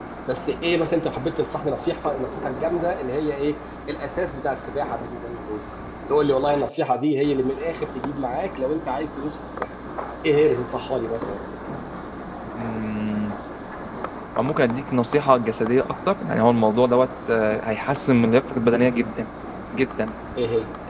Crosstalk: none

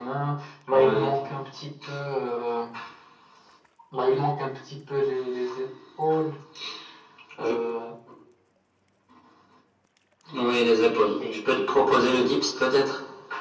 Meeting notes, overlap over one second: present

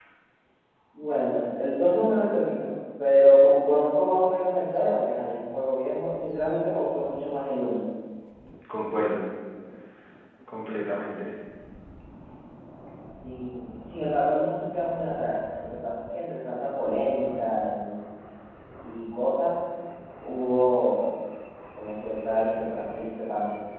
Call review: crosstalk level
none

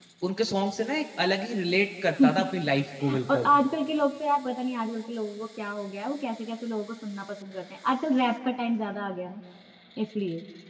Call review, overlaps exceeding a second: none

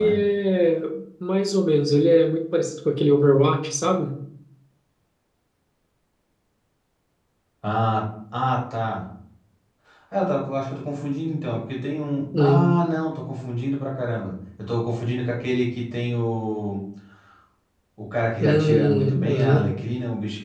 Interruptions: present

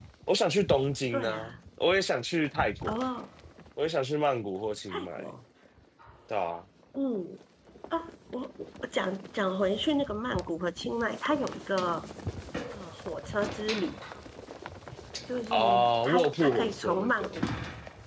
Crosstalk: present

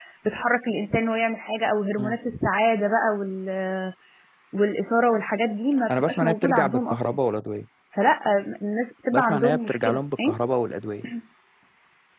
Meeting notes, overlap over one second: present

